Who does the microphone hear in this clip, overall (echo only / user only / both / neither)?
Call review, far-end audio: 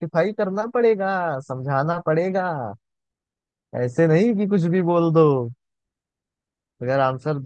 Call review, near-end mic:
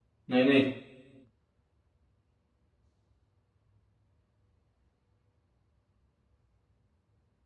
user only